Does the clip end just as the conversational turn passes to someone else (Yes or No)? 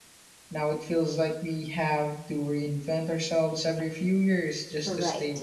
Yes